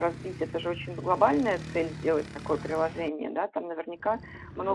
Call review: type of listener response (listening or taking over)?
listening